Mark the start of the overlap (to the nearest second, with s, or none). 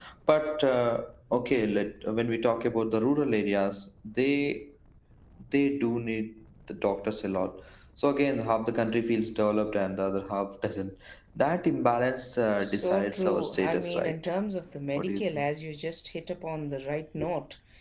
13 s